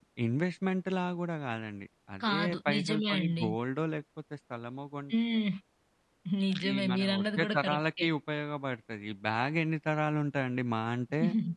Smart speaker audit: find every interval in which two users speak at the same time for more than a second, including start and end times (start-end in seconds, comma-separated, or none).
2.2-3.5, 6.6-8.1